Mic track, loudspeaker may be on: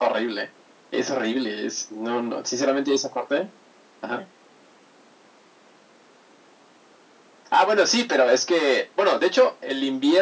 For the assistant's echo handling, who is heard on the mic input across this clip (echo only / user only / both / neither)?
echo only